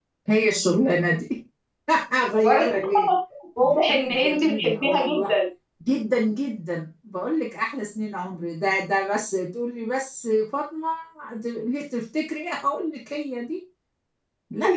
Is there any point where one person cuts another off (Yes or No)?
Yes